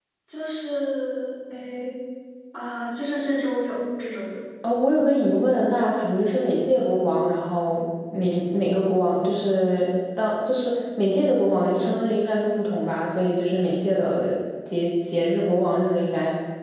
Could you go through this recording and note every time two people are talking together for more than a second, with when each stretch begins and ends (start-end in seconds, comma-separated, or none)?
none